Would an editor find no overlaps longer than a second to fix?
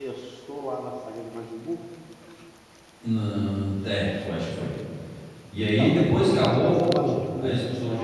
No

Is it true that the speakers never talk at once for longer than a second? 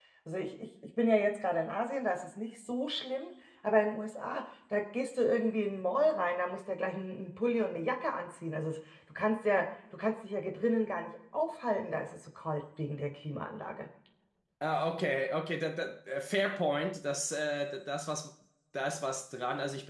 Yes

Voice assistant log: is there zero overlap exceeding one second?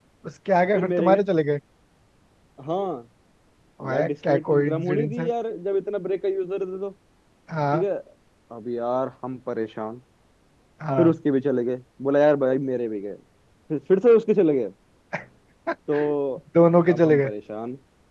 No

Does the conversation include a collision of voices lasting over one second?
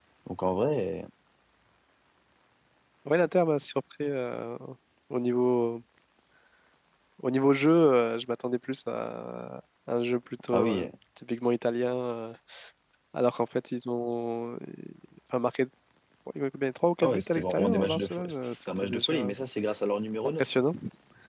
Yes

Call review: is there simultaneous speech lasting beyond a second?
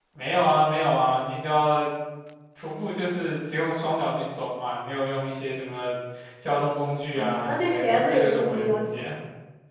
Yes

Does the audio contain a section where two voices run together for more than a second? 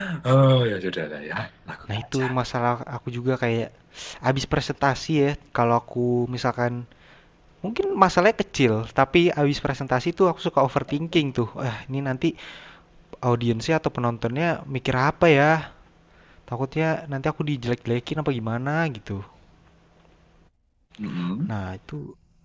No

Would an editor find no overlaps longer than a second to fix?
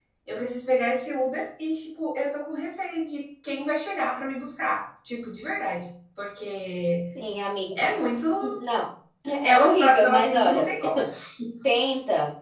No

